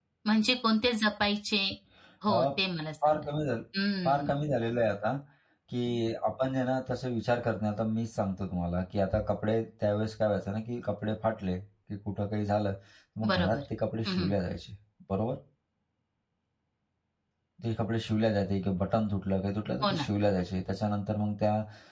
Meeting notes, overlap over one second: none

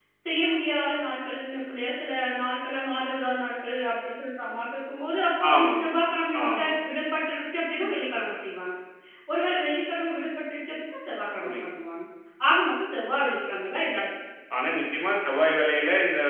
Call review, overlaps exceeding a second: none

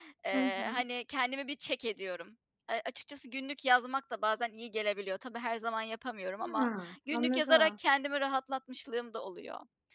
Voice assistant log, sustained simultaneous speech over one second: present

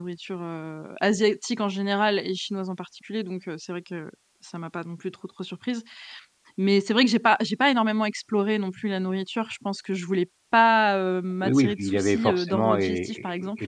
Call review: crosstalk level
present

